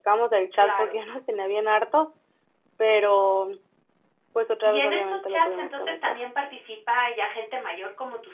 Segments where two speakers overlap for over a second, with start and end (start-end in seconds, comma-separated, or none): 4.6-6.2